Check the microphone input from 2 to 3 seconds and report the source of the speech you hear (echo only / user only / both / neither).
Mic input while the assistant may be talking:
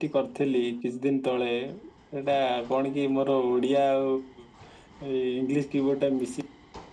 echo only